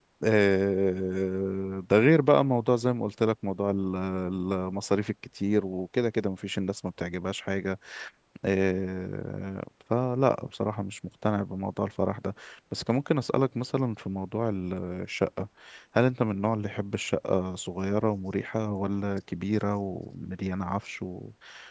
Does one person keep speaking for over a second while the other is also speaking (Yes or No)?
No